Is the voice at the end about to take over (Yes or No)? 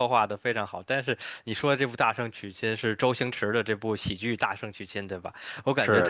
No